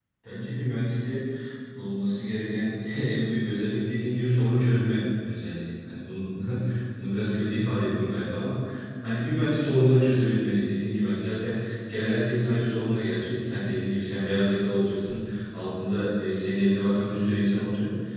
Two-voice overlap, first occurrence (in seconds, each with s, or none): none